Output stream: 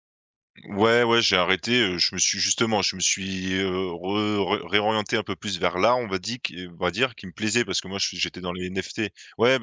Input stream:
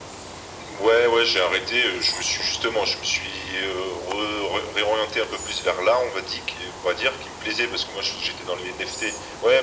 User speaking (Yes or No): No